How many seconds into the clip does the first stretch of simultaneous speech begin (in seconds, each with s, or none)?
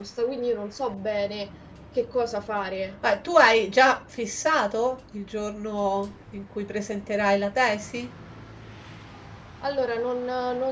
none